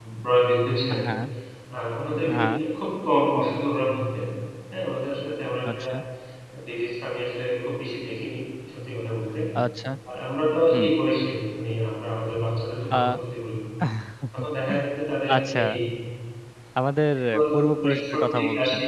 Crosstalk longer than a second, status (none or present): present